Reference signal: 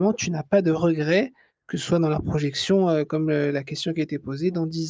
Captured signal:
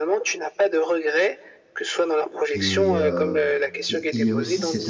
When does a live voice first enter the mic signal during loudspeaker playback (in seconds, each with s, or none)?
2.5 s